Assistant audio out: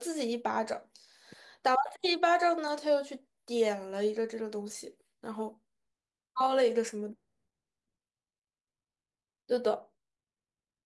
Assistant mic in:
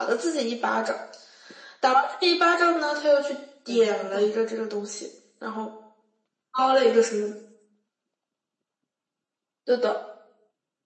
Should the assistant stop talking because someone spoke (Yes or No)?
Yes